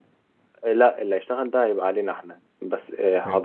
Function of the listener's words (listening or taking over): listening